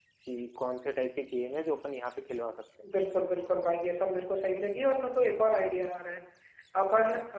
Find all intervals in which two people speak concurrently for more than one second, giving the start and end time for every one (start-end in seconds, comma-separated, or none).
none